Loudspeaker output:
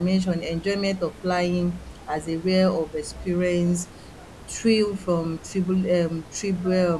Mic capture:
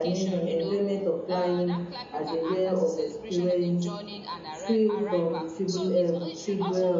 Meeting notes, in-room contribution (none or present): present